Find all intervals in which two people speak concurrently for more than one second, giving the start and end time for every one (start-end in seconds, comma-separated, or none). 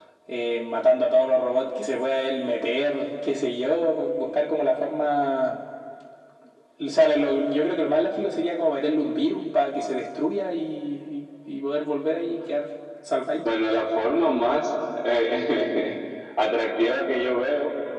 none